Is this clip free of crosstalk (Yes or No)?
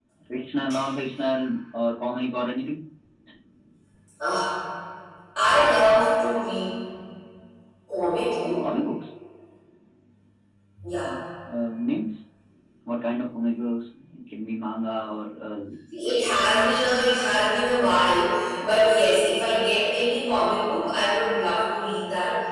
Yes